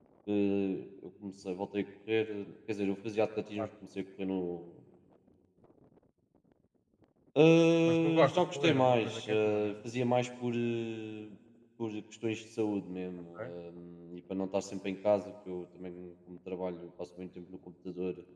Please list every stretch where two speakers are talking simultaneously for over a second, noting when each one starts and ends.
7.9-9.7

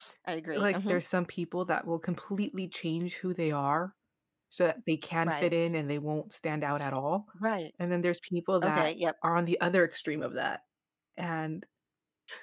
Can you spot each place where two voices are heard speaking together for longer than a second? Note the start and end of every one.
none

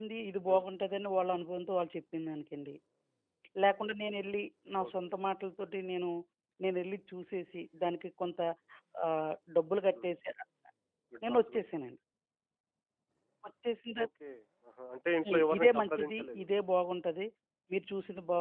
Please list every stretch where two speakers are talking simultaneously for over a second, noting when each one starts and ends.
15.2-16.4

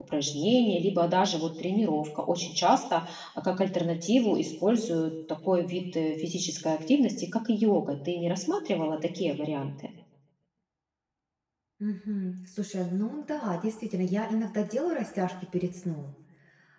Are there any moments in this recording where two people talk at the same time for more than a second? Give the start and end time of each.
none

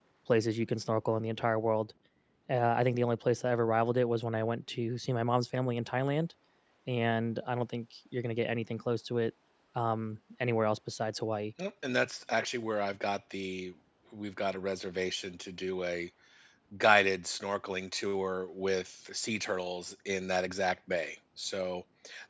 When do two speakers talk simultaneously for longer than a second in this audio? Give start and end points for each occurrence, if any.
none

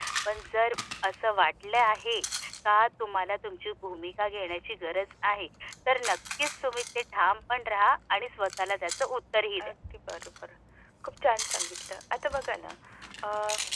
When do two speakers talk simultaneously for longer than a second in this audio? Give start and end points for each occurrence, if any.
none

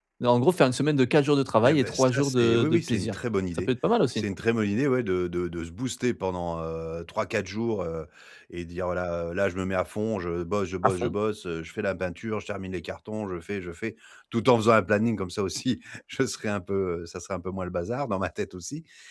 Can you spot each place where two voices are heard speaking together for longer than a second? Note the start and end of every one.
1.7-3.1

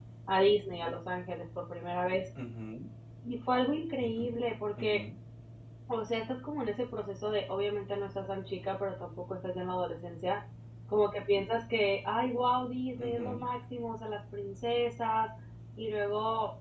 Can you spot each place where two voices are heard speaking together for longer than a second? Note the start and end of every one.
none

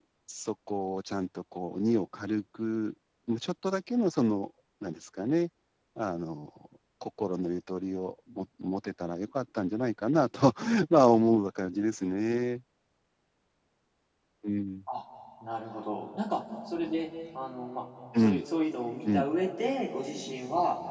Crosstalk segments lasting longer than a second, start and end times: none

